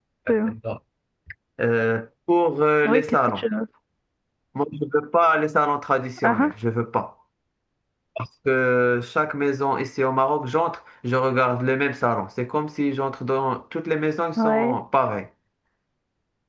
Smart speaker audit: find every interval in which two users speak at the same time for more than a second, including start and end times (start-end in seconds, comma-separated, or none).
none